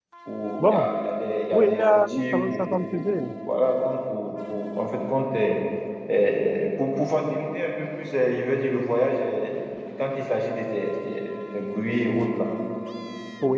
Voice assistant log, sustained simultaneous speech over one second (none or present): present